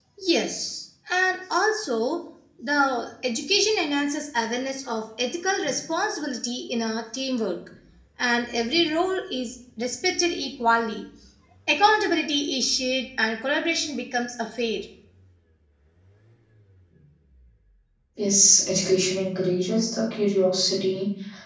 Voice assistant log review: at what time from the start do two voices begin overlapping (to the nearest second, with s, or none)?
none